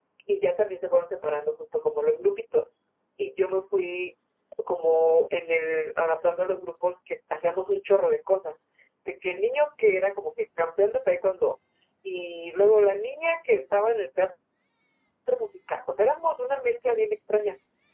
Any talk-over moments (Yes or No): No